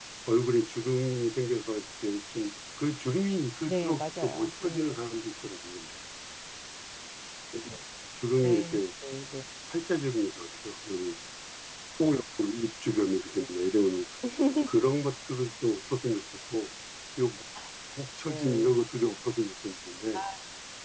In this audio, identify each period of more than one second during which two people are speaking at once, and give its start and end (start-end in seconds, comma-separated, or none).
3.7-5.0